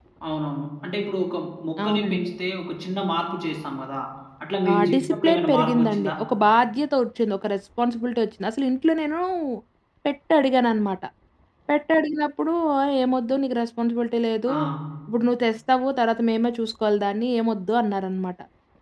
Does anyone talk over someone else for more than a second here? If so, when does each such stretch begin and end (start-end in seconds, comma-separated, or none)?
4.7-6.1